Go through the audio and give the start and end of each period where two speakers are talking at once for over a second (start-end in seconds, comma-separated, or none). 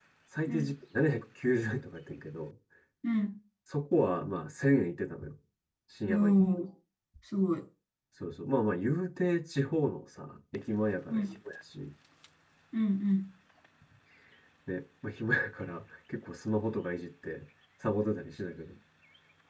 none